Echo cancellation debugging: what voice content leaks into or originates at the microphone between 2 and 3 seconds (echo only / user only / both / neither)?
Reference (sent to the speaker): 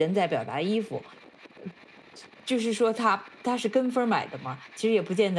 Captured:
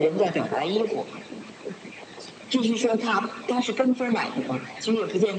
echo only